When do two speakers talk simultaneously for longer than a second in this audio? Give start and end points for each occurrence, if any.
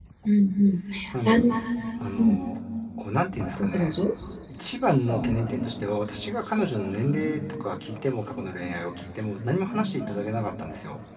none

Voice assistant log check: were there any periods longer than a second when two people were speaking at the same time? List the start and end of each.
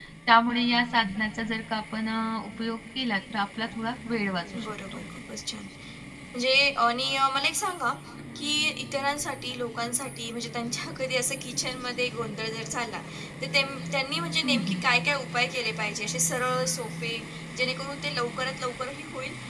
none

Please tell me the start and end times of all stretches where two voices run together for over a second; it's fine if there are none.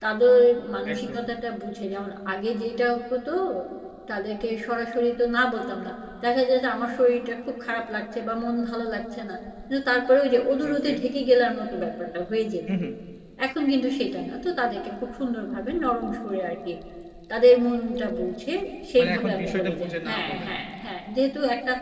19.0-20.5

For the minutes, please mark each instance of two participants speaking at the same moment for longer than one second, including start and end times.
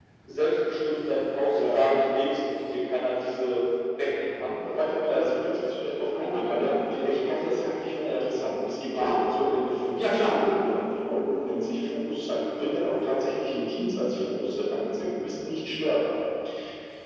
6.1-7.6

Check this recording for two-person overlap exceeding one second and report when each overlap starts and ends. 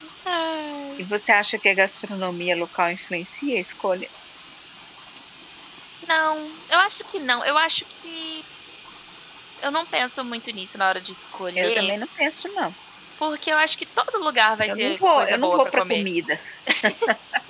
14.7-16.0

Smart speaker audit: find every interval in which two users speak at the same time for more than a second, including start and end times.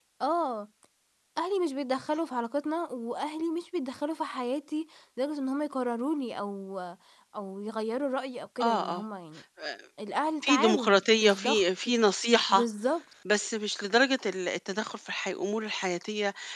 10.4-11.9

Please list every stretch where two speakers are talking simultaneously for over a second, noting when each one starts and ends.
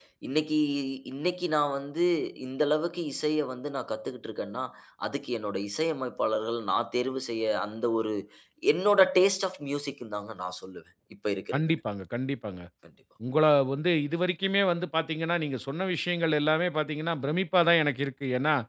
none

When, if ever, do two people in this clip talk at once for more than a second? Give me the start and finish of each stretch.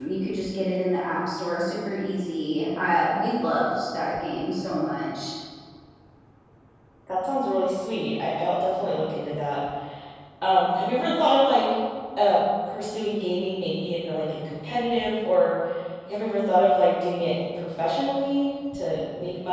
none

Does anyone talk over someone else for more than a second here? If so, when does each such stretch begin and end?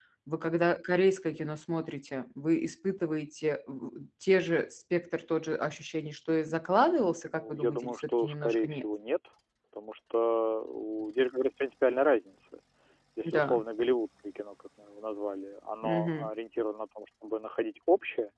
7.2-8.8

